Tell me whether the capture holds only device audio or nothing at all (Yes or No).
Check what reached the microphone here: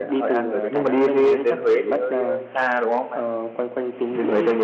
Yes